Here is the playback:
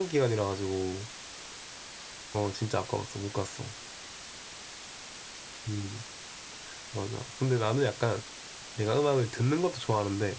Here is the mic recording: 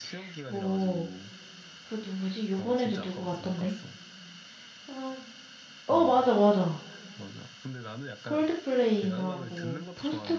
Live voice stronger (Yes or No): Yes